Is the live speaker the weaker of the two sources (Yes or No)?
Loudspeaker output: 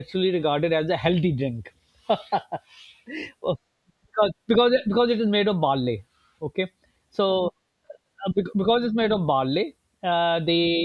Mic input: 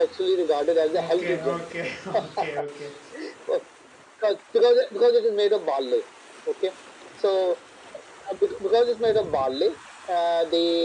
Yes